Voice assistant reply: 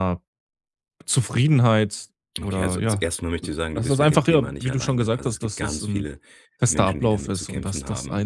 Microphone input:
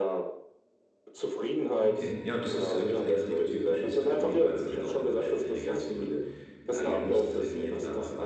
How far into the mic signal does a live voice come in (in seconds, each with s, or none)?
1.8 s